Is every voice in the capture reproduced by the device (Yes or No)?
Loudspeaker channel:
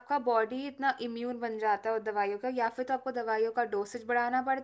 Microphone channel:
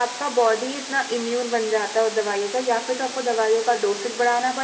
Yes